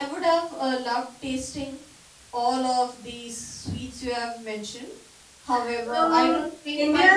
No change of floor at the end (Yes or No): No